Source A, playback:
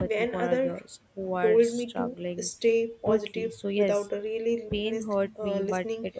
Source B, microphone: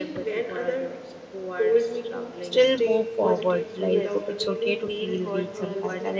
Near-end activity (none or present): present